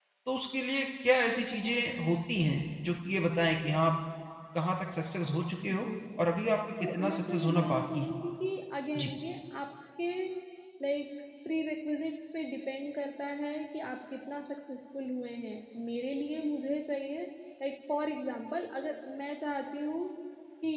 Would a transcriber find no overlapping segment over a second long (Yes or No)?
No